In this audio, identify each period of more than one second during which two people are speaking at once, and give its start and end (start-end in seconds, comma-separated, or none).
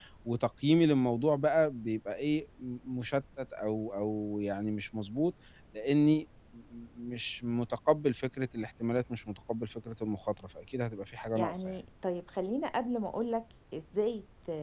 none